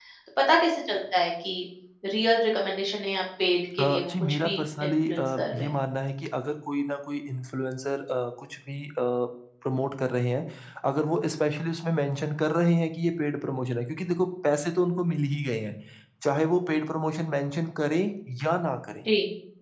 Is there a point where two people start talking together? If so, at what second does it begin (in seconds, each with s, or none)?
3.8 s